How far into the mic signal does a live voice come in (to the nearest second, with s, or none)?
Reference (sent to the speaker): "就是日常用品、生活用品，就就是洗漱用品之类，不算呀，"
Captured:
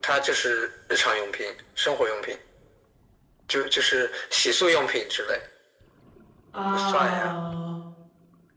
7 s